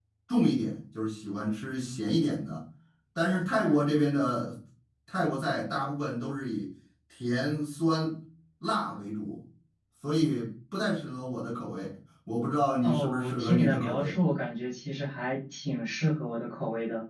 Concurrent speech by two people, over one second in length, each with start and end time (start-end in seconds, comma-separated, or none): 12.8-14.2